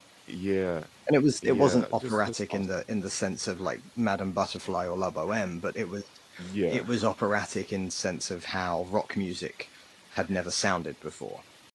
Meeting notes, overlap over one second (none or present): present